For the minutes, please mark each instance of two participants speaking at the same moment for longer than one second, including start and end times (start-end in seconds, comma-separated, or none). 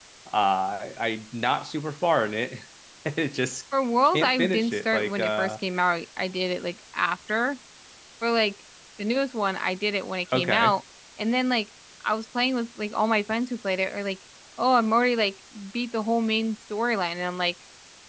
4.1-5.6